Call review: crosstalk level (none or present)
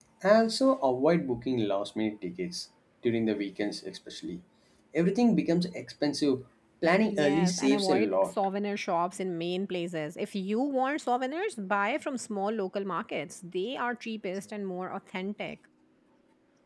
present